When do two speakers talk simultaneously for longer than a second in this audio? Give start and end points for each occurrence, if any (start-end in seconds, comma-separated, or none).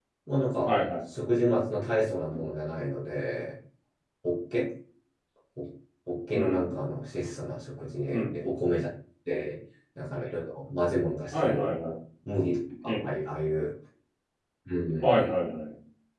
none